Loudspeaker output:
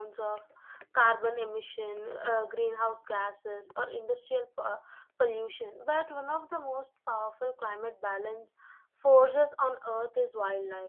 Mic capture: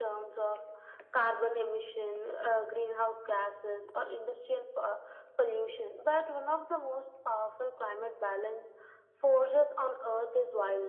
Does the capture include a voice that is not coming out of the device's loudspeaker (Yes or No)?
No